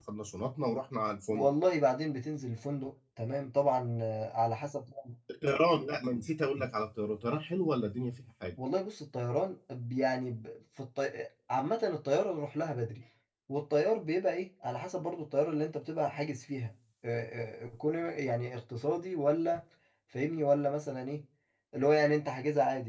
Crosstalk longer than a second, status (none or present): none